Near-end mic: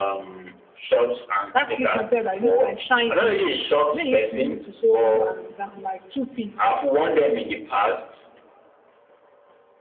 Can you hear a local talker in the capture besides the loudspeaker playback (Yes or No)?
Yes